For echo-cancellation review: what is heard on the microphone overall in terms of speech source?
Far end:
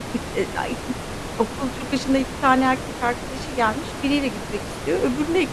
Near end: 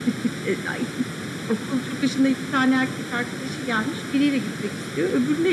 echo only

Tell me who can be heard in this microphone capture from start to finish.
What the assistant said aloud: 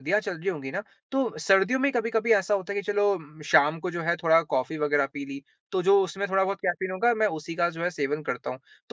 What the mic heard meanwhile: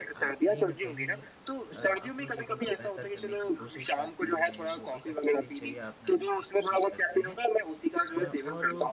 both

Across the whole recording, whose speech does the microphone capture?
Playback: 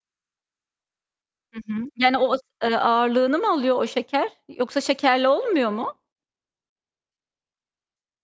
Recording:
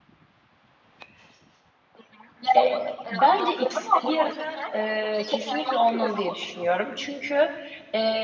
both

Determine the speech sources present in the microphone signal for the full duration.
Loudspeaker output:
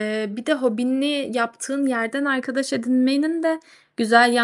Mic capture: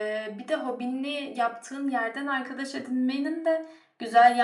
echo only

